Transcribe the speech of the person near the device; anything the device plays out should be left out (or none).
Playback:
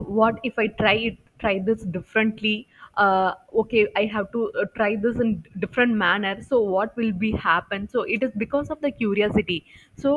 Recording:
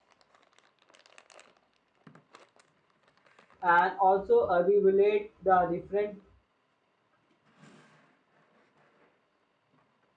and also evaluate the different